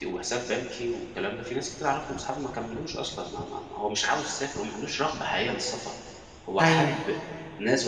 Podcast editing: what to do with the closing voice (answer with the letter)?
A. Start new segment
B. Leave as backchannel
B